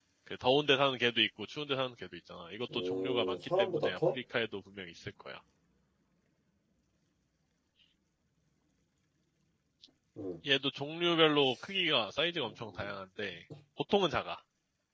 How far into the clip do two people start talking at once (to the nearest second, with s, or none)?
3 s